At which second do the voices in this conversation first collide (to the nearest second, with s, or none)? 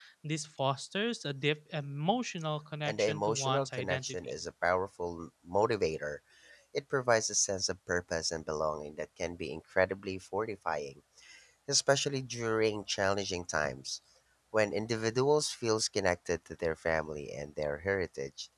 3 s